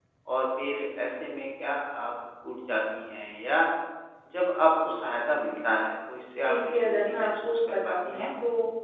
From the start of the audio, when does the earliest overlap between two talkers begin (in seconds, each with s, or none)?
6.5 s